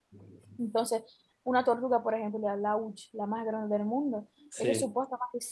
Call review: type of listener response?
listening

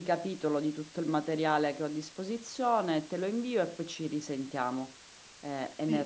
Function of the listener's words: taking over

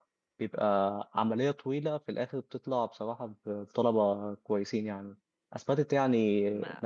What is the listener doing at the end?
listening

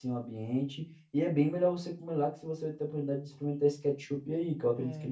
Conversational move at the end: taking over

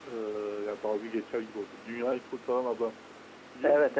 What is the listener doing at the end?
taking over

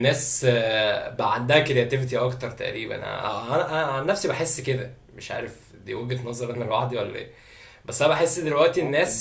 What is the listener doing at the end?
listening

